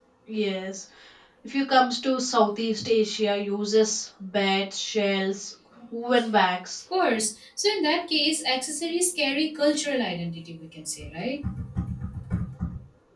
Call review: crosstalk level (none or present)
none